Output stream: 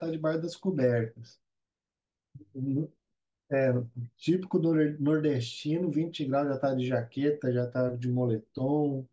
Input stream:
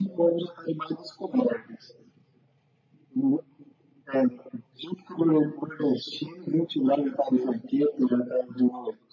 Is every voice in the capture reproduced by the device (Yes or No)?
Yes